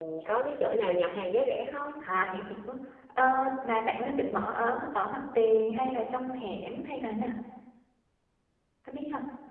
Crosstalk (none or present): none